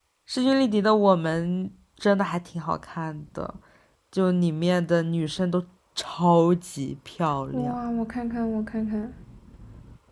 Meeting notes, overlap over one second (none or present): none